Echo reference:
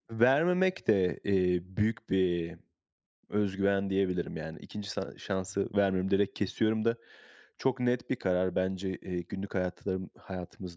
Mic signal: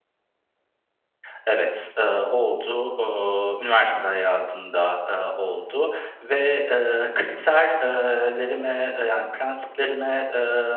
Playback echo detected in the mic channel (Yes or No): No